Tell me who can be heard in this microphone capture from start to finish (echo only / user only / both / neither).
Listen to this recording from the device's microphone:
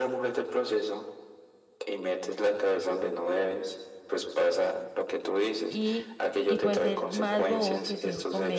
both